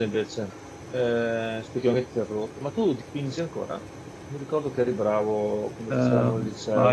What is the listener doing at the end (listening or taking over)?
taking over